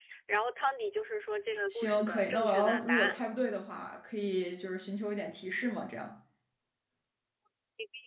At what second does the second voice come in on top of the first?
1.7 s

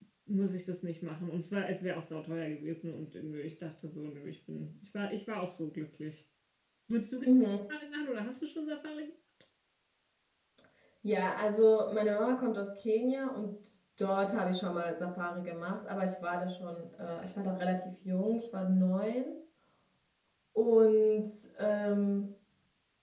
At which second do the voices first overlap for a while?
none

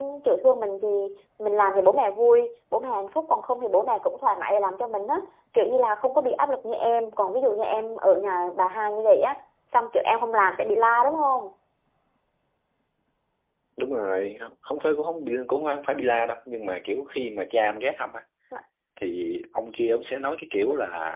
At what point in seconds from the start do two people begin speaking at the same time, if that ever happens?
none

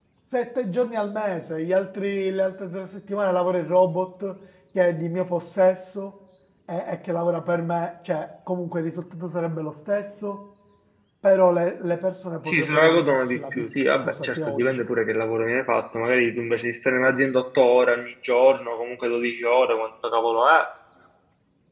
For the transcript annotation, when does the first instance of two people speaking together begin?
12.4 s

